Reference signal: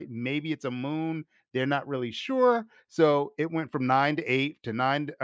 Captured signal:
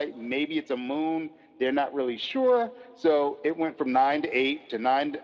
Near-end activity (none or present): none